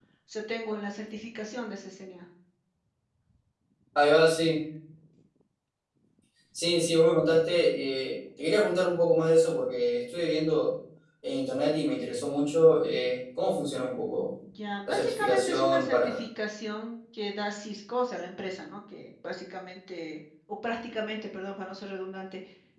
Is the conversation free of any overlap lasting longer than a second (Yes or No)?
No